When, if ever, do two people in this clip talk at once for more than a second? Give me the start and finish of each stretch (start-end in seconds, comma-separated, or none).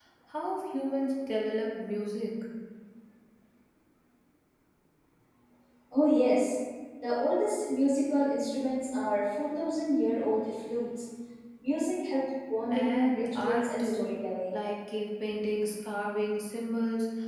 12.7-14.1